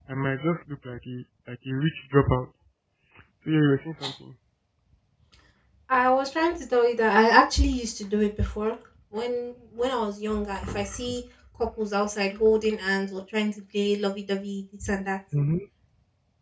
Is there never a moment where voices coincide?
Yes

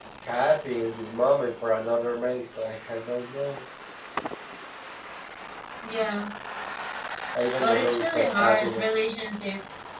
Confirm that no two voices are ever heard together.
No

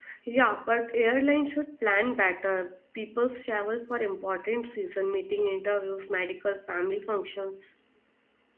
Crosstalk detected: No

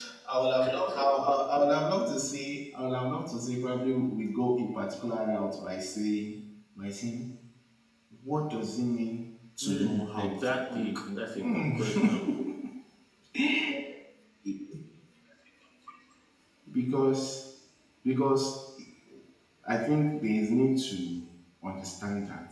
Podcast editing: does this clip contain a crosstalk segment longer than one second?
Yes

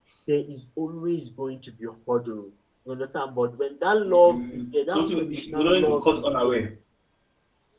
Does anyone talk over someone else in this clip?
Yes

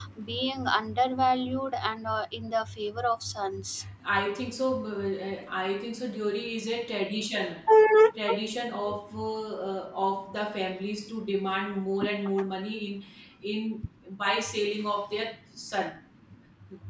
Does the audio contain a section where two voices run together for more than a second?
No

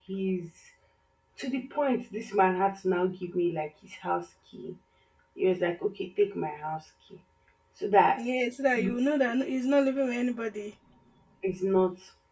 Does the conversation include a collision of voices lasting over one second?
No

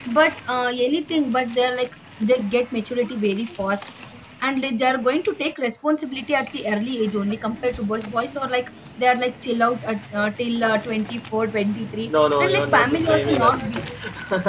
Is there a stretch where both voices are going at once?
Yes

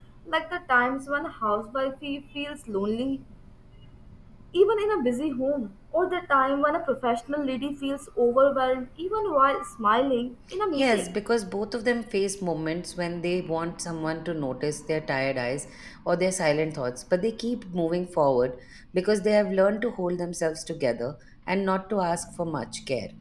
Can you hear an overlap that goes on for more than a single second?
No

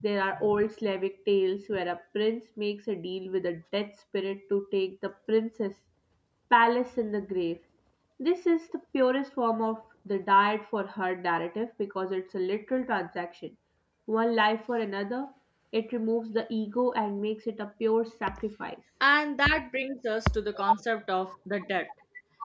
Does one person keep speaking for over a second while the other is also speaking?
No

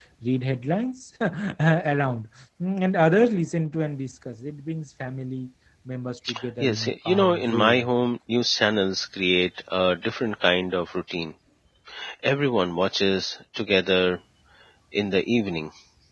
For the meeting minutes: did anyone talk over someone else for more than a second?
Yes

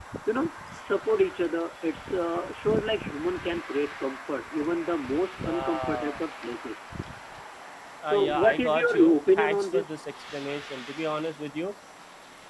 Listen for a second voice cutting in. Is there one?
Yes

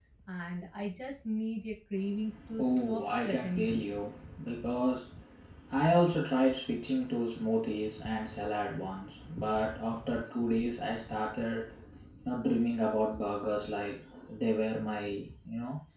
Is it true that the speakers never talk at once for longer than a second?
No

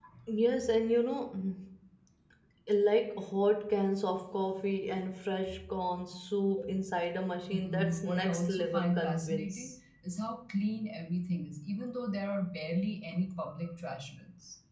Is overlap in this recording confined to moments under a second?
No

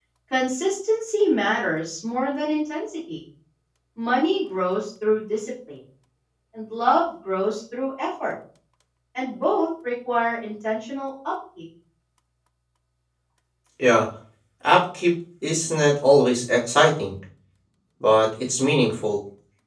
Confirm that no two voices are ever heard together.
Yes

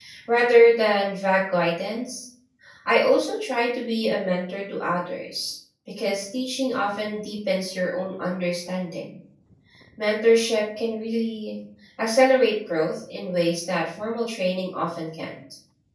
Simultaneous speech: No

